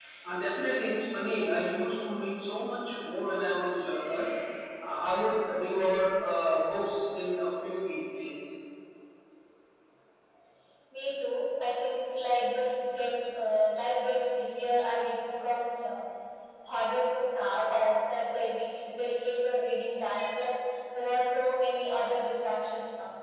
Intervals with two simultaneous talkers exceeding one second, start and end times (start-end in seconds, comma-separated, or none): none